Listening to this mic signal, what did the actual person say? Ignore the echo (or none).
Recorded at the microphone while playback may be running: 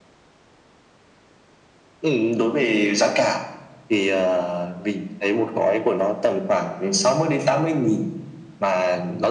none